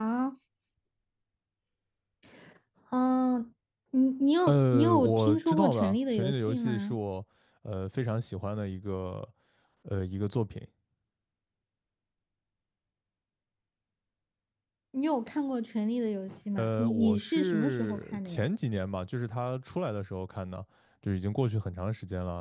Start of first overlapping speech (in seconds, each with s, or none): 4.5 s